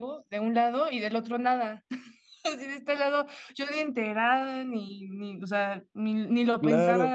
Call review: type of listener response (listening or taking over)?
taking over